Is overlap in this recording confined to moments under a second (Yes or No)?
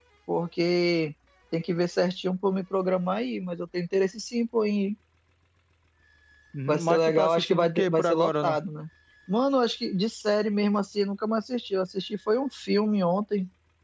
No